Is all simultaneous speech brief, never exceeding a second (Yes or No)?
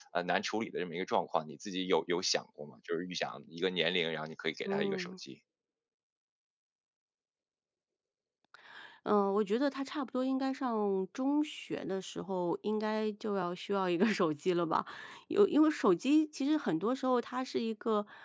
Yes